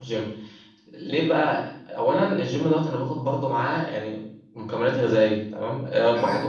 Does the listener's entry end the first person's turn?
No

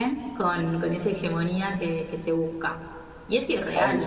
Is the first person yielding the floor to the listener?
Yes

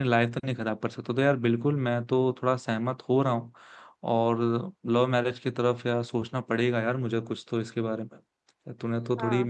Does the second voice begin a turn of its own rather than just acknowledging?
No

